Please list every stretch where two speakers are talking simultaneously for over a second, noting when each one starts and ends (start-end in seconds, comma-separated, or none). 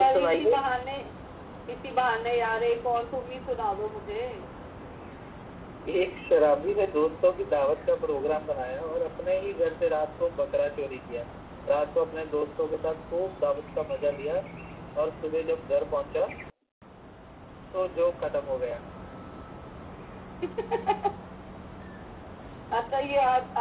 none